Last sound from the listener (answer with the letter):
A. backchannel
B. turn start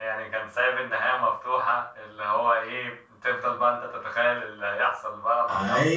B